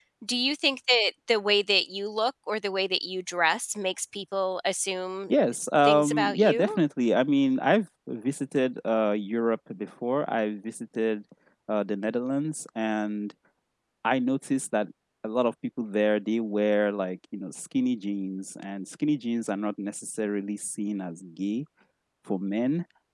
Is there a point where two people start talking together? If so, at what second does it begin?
5.3 s

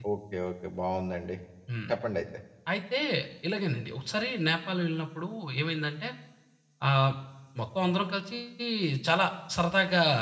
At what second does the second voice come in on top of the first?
none

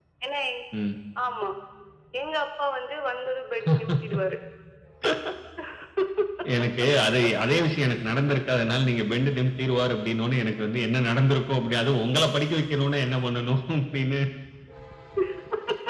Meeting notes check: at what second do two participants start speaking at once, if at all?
none

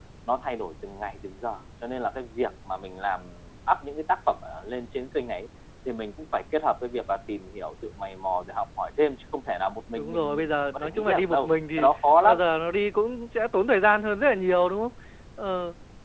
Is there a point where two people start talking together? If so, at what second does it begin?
9.9 s

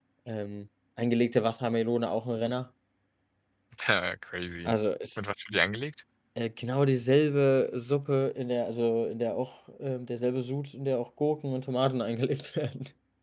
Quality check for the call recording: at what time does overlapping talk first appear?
none

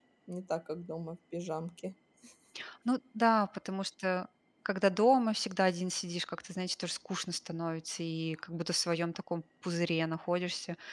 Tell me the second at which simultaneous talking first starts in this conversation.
none

